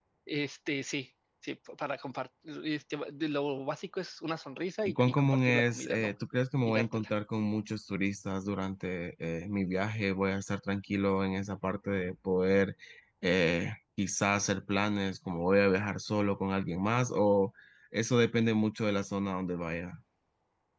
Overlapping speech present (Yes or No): Yes